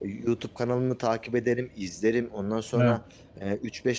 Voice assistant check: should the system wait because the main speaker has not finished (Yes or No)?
Yes